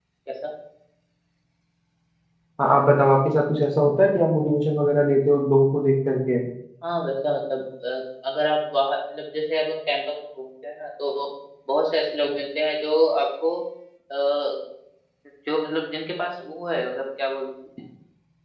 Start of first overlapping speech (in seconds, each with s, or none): none